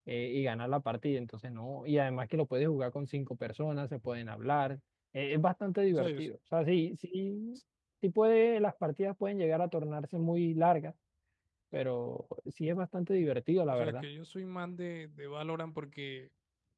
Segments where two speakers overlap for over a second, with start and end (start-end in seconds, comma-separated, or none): none